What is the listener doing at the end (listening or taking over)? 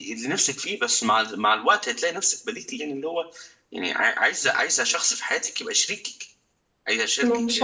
taking over